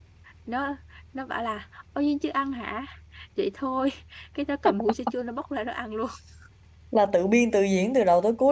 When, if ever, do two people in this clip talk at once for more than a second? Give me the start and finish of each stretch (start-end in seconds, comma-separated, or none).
none